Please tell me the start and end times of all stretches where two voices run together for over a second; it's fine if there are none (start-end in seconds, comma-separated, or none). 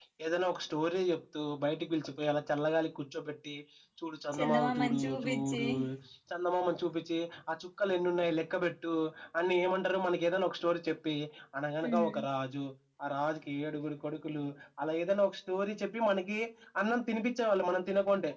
4.3-5.6